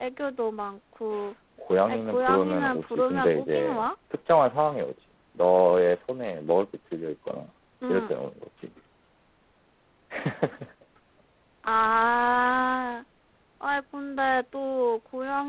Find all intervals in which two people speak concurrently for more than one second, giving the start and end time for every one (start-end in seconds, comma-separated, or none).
1.9-3.9